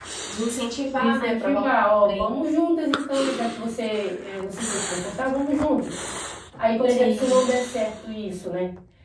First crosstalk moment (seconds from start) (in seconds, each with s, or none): 1.0 s